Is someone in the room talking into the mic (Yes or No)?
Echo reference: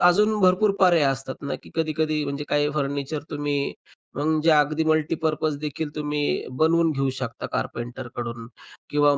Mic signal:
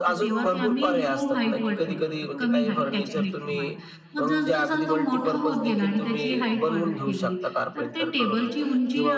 Yes